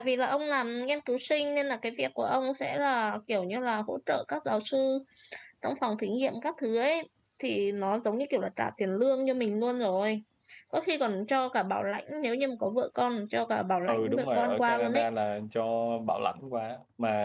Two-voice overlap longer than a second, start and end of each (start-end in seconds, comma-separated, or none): 13.8-15.1